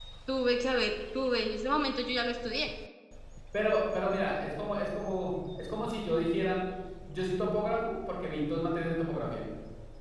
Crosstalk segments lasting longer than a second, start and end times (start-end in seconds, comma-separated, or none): none